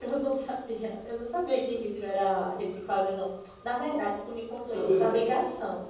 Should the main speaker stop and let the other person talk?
No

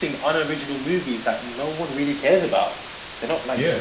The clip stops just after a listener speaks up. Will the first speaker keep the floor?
No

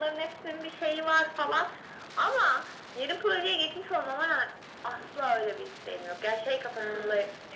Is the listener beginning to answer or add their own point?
No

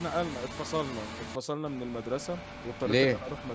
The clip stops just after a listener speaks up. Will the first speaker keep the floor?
Yes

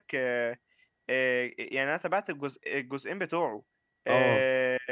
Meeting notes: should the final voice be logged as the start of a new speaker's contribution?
No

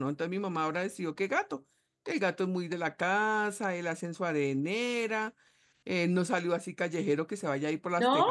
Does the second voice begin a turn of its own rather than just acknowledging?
No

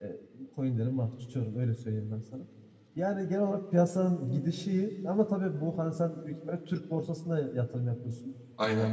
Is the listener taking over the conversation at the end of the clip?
No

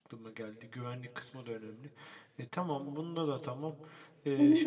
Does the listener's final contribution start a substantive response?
Yes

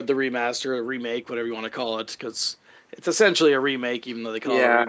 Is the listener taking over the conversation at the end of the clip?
Yes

